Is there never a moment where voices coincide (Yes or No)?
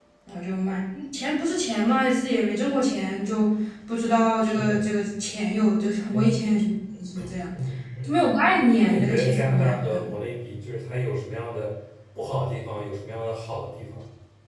No